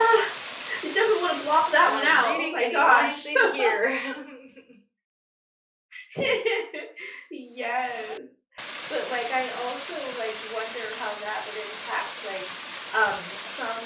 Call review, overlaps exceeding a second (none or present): present